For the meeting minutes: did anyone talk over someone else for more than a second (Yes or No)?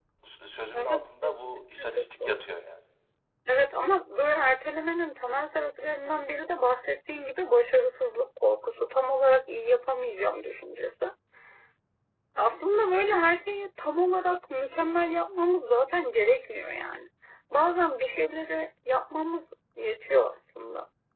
Yes